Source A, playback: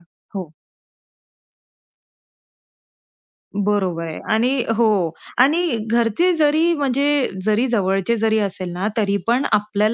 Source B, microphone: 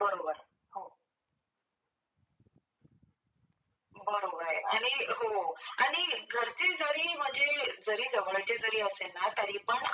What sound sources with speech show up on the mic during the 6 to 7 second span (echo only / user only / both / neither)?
echo only